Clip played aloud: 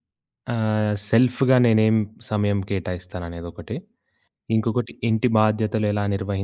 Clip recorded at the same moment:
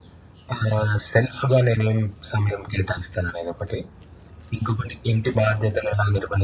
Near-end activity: none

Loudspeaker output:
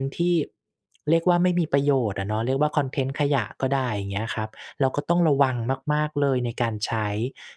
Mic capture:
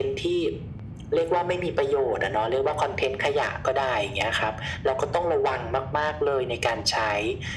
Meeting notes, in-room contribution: none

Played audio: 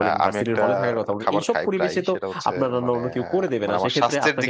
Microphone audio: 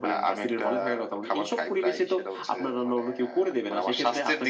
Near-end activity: none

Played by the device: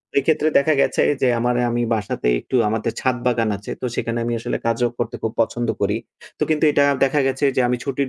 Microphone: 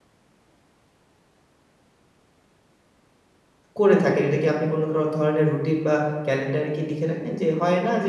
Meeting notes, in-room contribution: present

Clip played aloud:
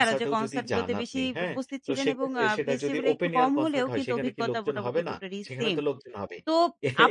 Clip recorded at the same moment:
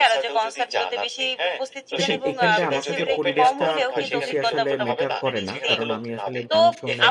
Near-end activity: present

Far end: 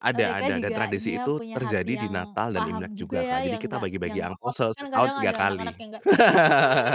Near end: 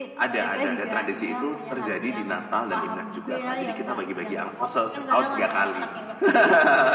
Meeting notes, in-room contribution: none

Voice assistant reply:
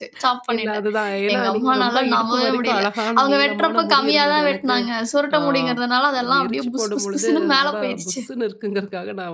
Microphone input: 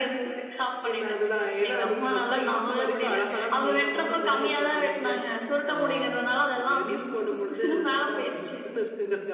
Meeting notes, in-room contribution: none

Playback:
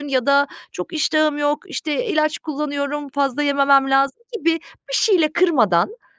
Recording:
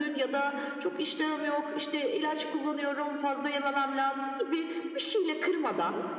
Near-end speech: none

